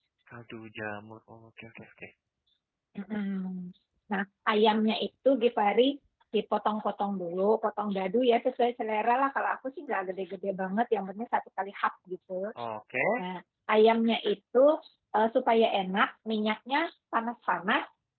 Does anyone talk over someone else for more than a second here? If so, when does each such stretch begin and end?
none

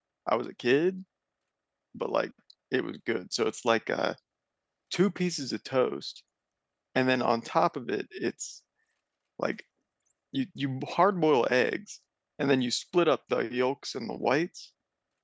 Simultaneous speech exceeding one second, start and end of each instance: none

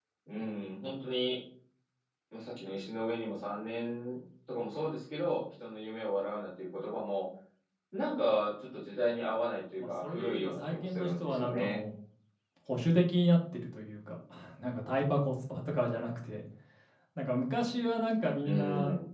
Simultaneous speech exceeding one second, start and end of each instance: 10.0-11.8

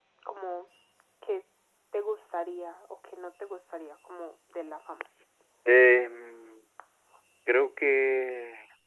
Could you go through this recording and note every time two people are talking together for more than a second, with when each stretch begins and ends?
none

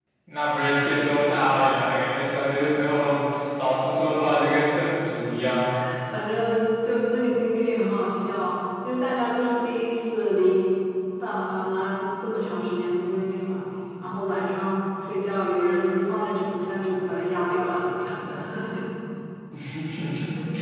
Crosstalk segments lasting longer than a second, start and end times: none

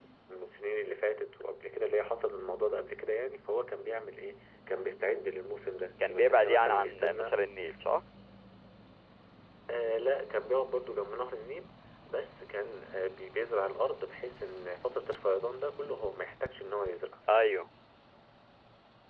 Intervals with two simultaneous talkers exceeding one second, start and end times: 6.1-7.3

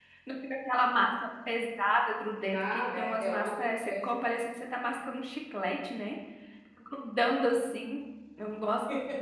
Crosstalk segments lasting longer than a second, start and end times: 2.5-4.2

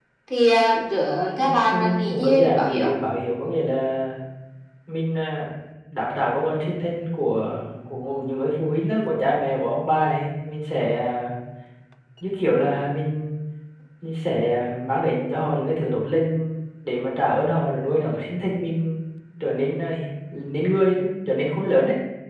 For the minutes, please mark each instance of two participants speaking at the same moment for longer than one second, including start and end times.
1.4-2.9

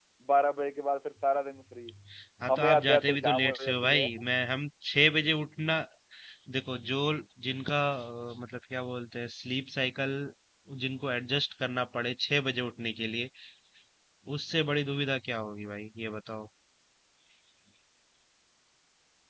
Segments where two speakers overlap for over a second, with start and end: 2.5-4.1

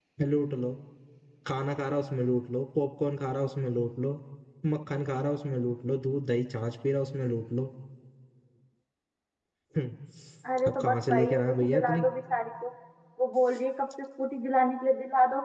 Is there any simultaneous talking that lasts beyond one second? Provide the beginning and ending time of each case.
10.7-12.0

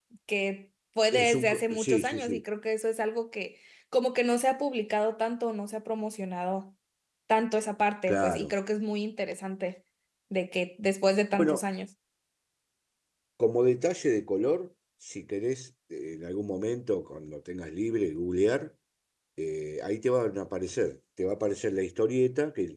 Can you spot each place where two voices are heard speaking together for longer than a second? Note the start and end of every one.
1.1-2.4

